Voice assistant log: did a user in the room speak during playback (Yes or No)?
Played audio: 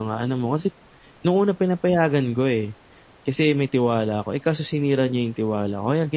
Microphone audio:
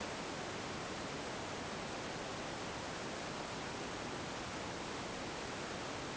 No